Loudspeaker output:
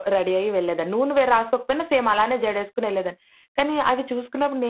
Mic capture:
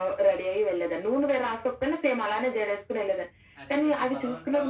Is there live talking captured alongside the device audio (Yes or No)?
Yes